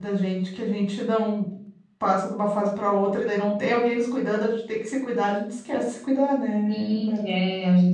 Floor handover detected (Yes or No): Yes